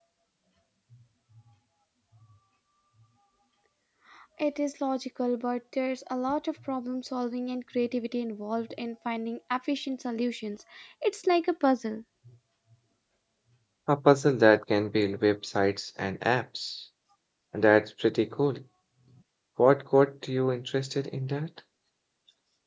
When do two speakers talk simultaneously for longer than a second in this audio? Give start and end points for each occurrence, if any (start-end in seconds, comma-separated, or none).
none